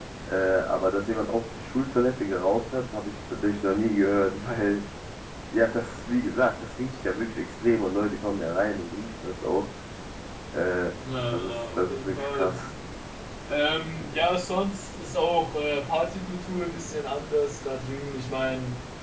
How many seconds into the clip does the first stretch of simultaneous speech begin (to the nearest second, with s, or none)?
11 s